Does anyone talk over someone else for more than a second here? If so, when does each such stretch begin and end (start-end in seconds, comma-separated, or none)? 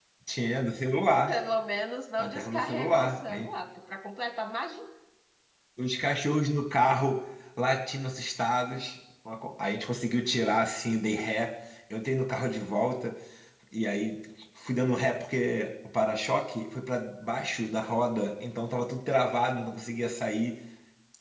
2.2-3.5